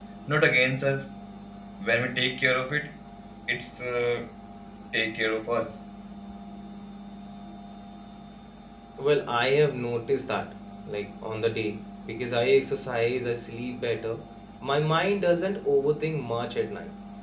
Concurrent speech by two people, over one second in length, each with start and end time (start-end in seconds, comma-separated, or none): none